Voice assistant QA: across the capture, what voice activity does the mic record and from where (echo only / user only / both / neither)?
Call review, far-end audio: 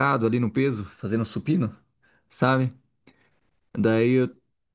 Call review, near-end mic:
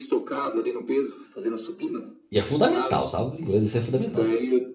both